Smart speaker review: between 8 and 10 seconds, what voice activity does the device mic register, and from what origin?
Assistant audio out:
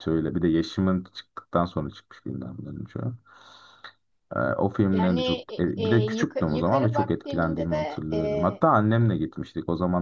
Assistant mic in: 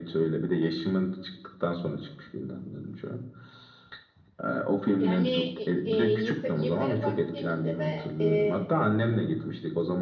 echo only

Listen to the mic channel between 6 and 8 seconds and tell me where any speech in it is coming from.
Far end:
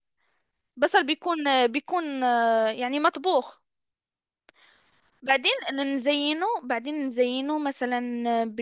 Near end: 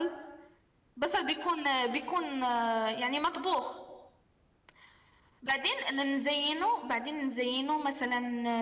echo only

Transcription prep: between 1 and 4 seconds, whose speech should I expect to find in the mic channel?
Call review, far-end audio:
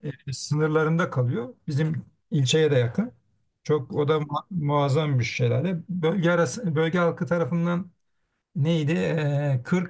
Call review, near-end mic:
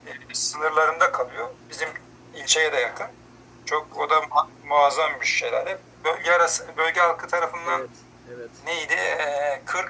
echo only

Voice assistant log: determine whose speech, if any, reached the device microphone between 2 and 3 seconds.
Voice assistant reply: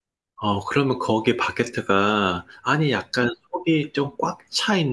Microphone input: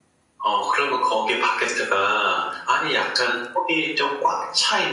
echo only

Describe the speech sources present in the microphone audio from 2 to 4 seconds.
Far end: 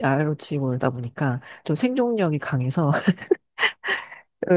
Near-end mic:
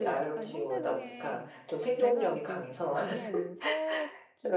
both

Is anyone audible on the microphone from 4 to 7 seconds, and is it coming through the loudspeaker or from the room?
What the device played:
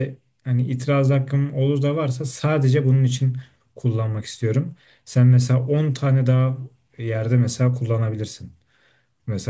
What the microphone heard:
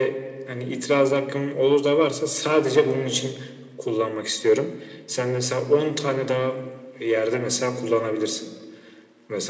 echo only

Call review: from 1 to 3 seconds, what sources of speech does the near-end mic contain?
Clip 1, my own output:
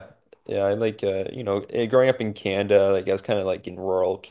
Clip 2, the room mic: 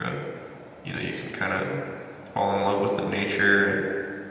user only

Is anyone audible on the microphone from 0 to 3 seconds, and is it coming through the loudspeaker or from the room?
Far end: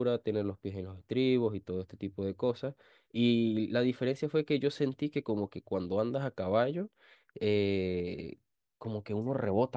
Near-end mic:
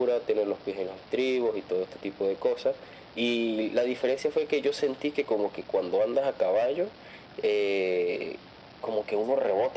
echo only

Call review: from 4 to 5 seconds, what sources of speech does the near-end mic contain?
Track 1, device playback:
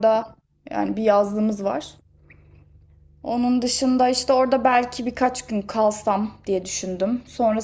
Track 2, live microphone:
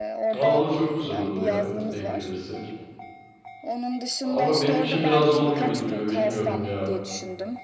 both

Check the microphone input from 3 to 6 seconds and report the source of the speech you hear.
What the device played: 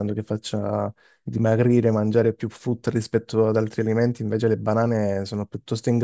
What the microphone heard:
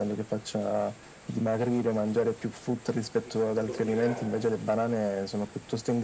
both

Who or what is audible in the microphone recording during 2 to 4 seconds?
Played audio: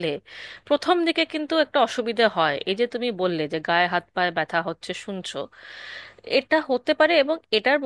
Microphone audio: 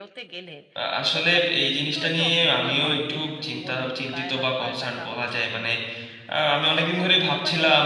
both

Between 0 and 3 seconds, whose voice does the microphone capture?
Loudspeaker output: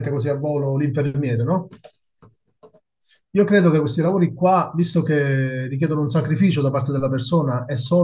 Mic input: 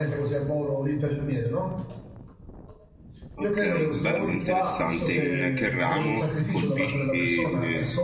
echo only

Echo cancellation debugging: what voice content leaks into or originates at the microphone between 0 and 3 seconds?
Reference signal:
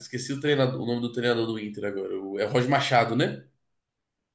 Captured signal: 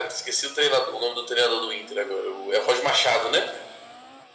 echo only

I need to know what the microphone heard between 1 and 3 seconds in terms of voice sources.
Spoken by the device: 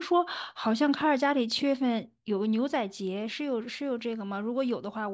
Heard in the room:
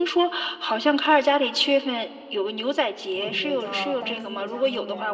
echo only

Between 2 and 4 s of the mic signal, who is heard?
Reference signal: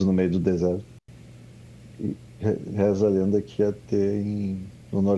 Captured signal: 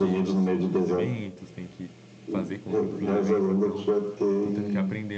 both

